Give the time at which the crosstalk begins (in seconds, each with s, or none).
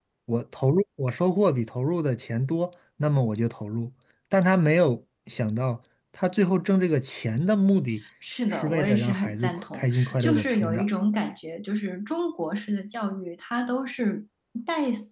8.5 s